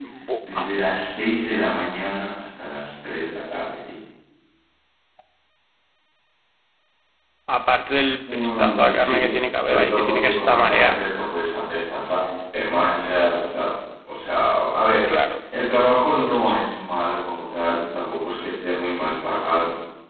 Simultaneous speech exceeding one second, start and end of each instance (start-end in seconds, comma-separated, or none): 8.2-11.0